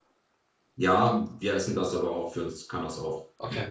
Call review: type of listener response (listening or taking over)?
listening